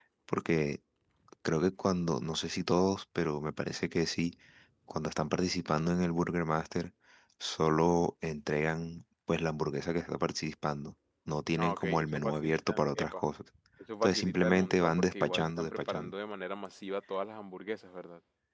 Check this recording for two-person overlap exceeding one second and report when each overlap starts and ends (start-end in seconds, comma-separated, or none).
11.6-13.2, 14.0-16.1